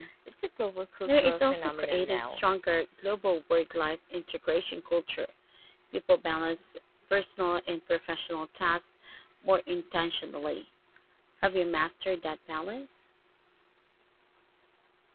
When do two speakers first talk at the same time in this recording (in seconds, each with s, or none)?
1.1 s